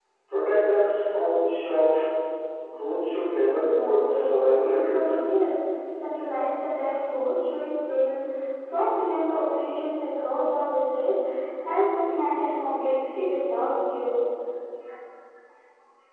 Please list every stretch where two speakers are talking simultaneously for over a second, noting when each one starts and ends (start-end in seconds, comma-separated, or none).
3.5-5.2